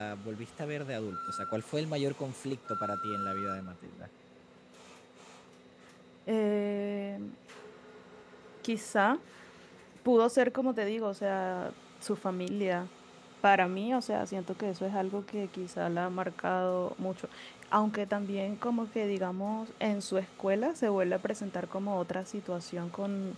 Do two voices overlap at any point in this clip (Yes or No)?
No